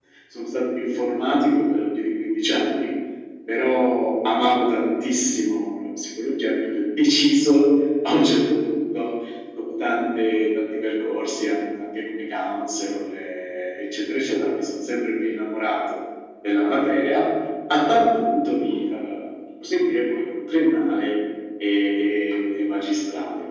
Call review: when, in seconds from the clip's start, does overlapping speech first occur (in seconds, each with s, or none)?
none